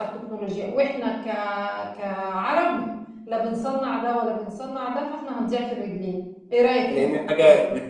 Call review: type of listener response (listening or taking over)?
taking over